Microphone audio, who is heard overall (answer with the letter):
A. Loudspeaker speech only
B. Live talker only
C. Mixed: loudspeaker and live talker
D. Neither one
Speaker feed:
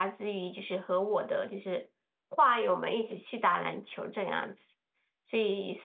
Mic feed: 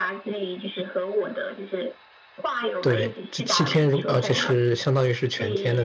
C